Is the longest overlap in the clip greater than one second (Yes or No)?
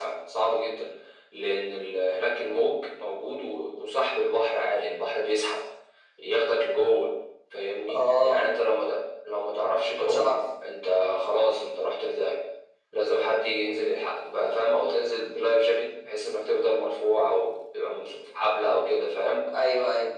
No